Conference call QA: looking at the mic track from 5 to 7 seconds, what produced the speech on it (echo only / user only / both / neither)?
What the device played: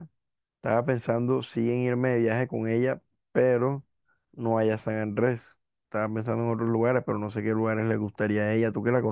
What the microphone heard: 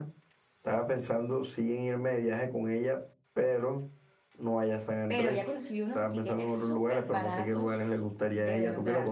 both